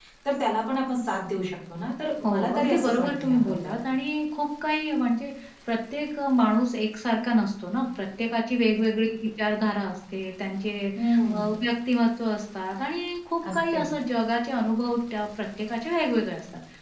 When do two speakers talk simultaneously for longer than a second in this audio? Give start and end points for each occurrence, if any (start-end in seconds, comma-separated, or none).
2.2-3.8